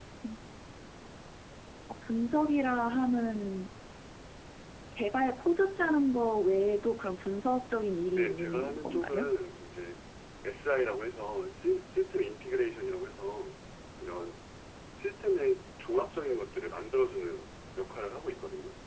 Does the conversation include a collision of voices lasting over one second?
Yes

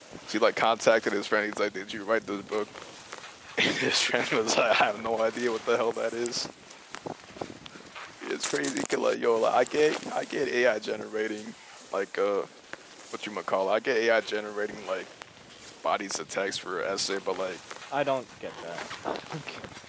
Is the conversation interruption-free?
Yes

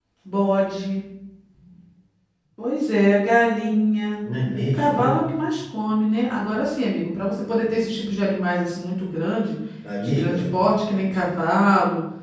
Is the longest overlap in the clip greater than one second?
No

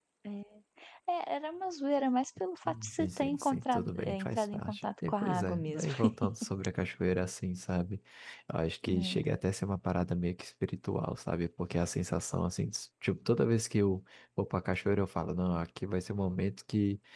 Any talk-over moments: Yes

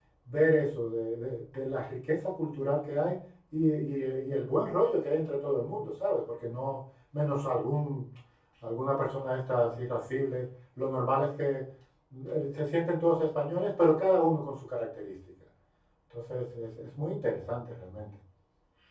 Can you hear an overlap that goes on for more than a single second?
No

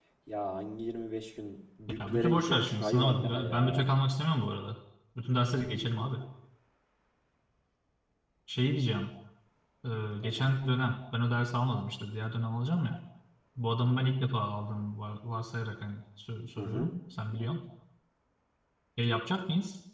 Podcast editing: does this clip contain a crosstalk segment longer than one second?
Yes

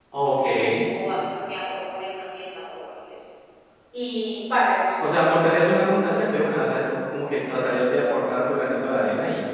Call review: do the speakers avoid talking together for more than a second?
Yes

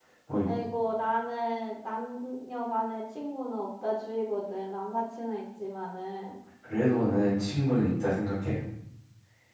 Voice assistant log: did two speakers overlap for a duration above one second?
No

